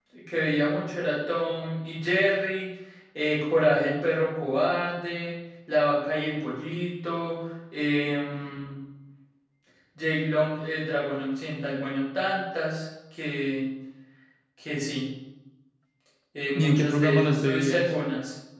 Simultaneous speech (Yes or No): Yes